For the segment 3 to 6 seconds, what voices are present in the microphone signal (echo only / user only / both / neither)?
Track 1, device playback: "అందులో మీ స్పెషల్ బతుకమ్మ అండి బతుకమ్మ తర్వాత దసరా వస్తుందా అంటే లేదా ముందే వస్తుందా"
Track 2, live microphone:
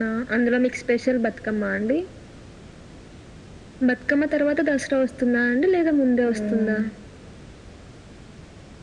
echo only